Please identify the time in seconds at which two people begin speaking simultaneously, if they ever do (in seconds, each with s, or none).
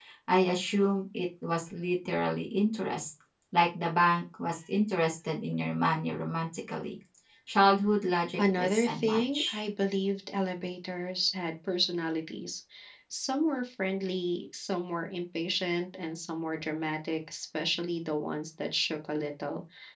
8.4 s